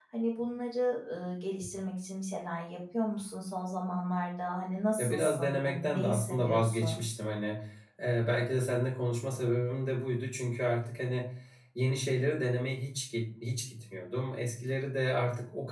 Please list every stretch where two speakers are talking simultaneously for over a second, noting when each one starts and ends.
5.0-7.0

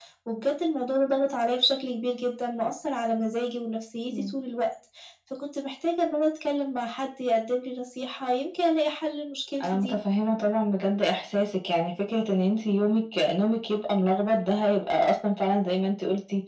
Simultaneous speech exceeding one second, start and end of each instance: none

